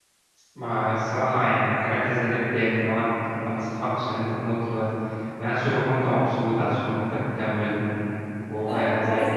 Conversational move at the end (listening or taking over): taking over